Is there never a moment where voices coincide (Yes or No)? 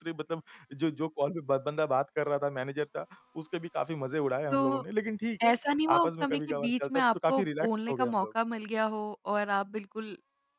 No